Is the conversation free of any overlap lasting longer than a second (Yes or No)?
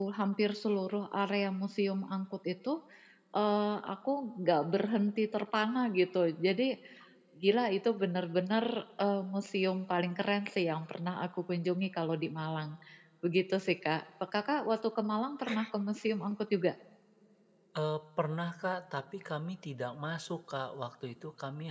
Yes